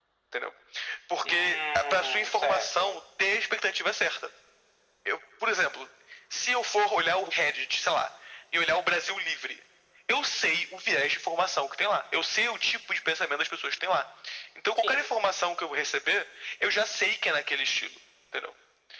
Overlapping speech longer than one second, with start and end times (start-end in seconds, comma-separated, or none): 1.2-3.0